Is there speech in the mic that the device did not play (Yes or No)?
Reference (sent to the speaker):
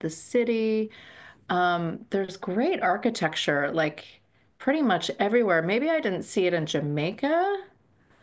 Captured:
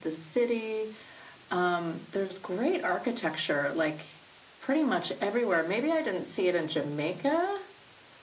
No